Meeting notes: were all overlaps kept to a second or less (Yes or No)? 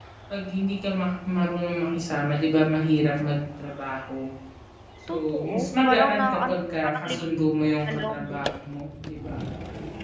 No